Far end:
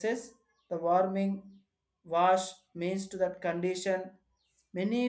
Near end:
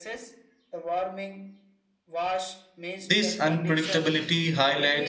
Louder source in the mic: user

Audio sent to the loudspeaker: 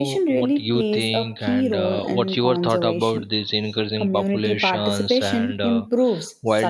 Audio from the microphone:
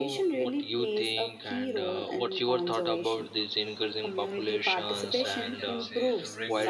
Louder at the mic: echo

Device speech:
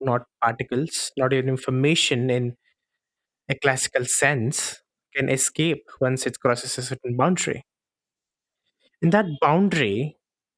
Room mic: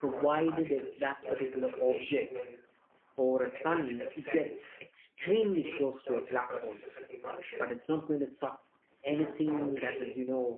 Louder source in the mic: user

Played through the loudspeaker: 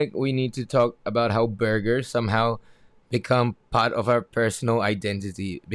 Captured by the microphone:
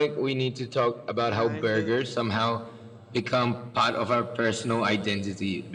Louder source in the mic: echo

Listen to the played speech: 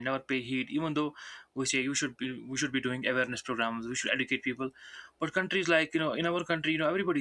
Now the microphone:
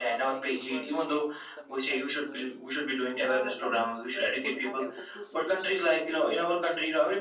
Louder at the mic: echo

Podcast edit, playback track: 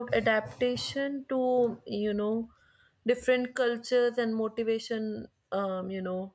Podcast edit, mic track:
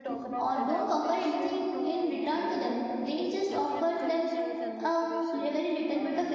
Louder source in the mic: user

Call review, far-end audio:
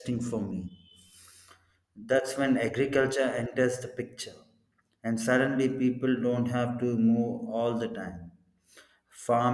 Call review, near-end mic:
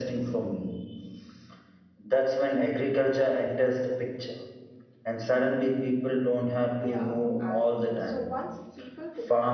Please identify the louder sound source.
echo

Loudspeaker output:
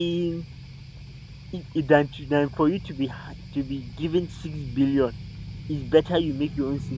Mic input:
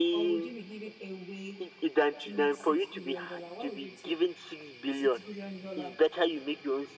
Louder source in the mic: echo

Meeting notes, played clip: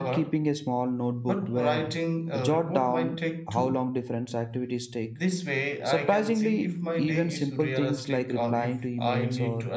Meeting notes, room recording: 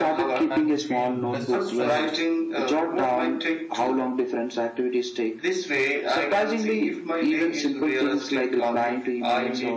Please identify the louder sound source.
echo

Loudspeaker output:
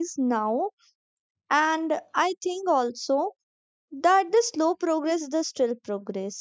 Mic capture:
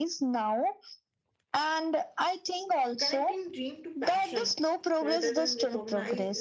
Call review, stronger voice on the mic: echo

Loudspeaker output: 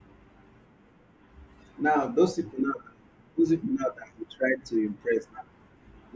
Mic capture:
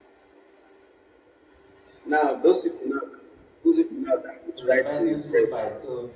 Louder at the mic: echo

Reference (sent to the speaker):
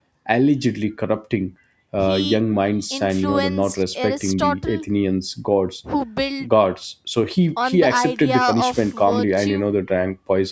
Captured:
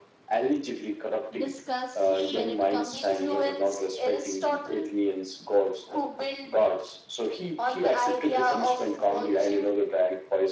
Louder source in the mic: echo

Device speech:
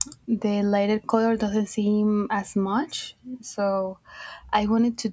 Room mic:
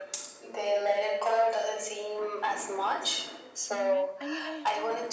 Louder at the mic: echo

